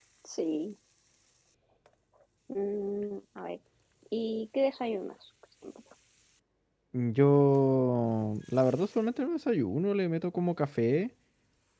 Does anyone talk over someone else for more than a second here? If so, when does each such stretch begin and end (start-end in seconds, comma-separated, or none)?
none